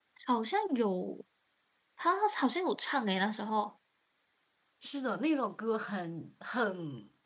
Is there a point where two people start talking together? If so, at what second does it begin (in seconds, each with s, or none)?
none